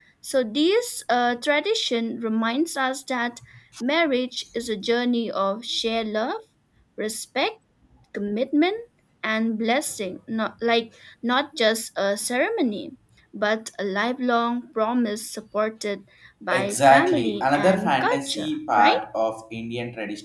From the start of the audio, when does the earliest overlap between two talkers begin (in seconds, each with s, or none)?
16.5 s